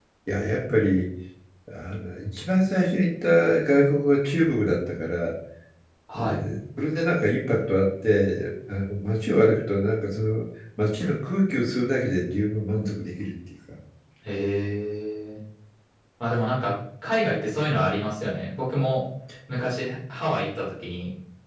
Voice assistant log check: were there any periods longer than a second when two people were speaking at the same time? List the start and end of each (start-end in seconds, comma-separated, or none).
none